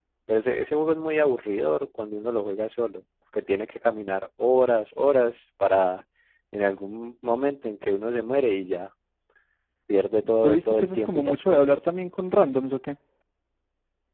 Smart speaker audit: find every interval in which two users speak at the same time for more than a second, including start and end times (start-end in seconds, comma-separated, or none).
10.2-11.9